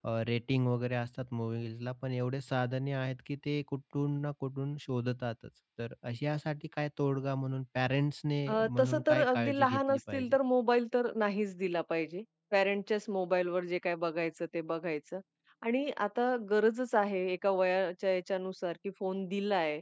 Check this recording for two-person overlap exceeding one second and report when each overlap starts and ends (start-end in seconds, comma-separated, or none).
8.5-10.3